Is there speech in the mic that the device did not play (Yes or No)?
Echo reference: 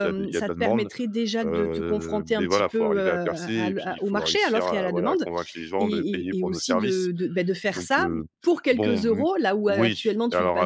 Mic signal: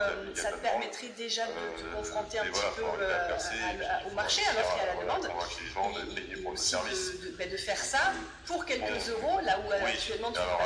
No